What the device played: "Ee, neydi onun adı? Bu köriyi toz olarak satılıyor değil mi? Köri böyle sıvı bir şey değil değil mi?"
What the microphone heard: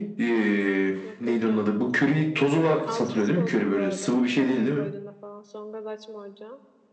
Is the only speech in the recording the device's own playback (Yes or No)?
No